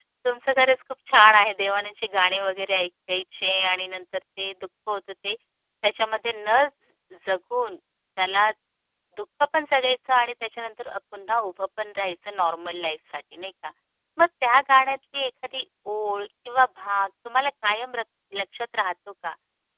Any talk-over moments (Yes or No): No